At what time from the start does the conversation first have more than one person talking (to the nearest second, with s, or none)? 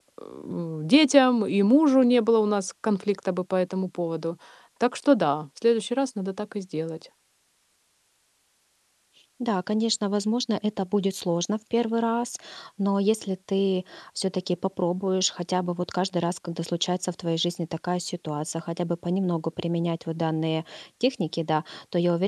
none